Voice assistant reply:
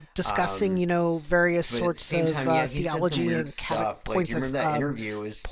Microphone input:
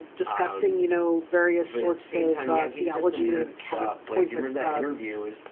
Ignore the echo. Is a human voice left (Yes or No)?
No